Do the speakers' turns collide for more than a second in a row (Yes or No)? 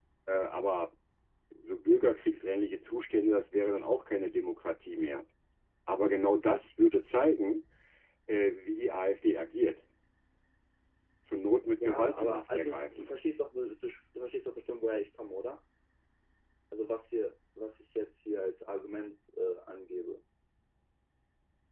Yes